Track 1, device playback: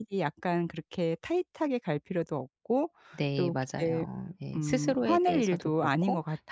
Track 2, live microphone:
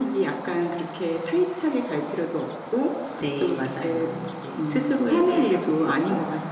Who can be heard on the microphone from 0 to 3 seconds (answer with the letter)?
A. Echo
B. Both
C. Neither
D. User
A